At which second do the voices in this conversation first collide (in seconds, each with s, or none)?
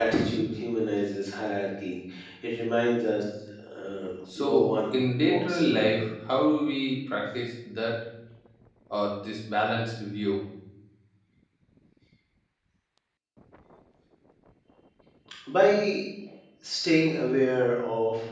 4.3 s